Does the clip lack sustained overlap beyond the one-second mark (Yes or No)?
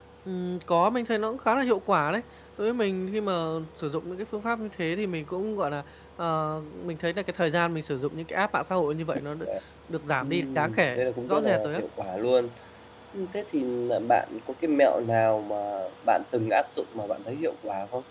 No